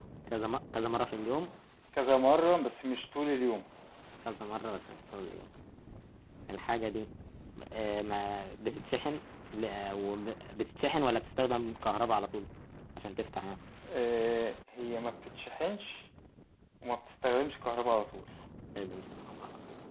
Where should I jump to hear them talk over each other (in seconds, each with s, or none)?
none